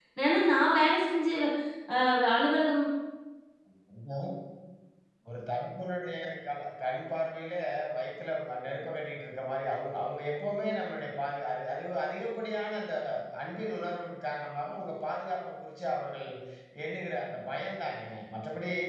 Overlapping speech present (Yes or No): No